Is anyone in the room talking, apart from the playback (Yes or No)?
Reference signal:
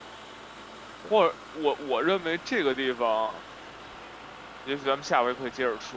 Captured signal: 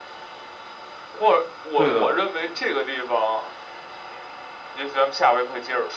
Yes